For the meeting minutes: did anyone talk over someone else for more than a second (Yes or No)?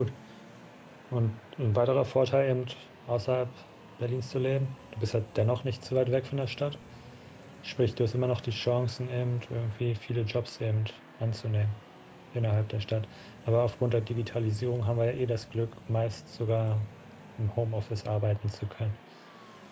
No